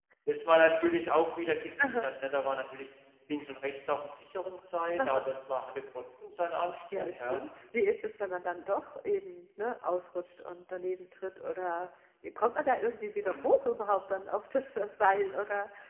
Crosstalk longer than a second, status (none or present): none